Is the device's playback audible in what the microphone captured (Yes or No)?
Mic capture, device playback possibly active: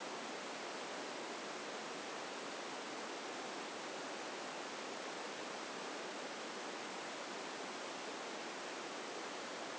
No